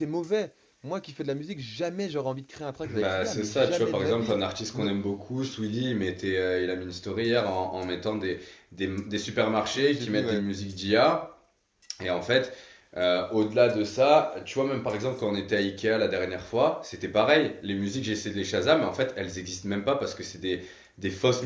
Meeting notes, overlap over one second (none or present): present